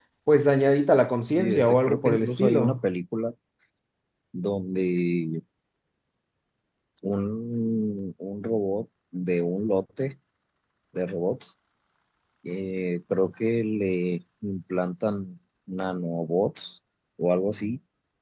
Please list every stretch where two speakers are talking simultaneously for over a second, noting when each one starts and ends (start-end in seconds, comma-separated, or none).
1.4-2.8